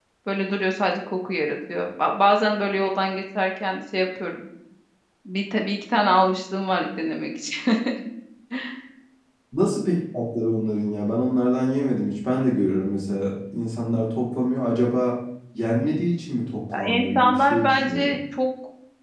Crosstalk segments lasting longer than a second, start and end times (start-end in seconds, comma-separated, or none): 16.8-18.2